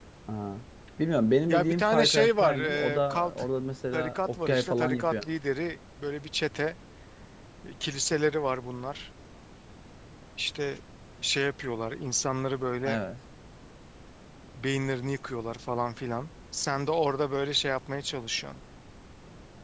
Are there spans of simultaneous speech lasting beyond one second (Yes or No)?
Yes